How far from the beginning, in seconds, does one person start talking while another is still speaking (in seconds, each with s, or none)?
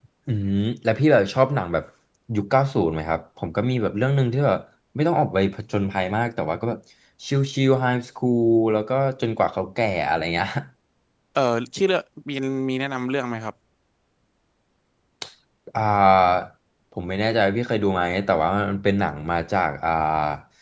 none